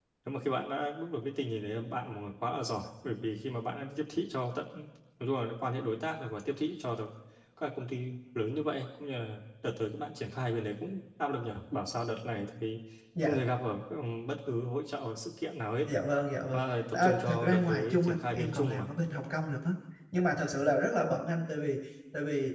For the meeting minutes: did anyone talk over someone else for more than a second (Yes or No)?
Yes